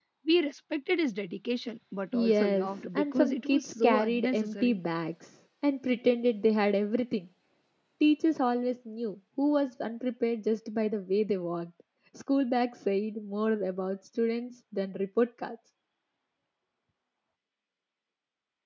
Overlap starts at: 2.1 s

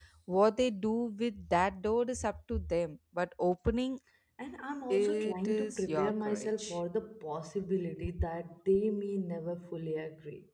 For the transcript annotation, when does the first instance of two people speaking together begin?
4.9 s

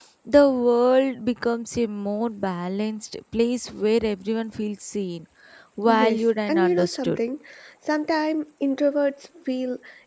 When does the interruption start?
5.9 s

